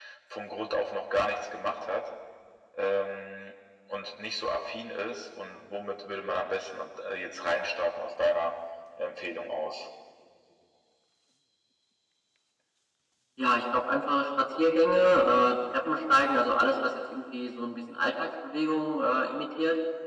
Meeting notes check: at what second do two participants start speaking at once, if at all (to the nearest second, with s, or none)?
none